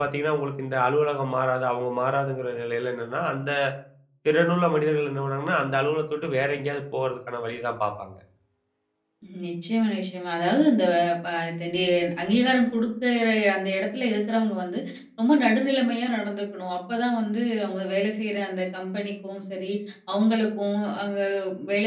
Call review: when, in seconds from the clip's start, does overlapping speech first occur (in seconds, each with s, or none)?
none